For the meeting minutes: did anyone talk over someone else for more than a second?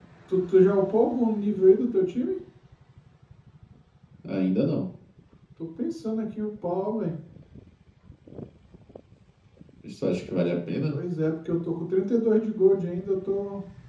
No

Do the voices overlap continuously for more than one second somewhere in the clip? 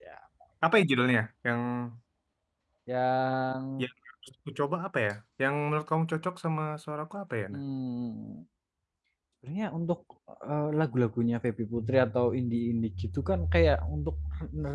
No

